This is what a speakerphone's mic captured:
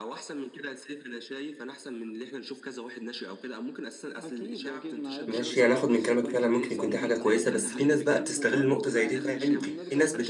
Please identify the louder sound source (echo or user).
user